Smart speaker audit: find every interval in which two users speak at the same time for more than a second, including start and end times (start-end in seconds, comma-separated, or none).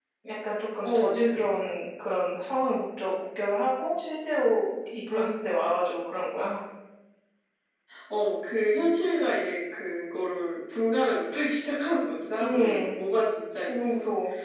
none